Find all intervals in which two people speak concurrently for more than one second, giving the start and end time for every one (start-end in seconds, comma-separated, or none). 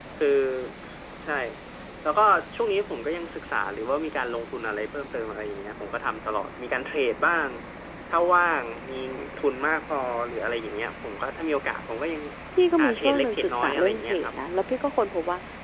12.8-14.3